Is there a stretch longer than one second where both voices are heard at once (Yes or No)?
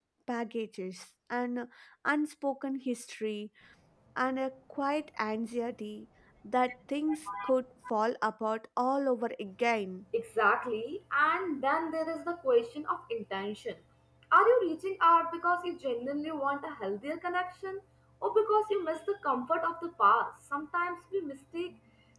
No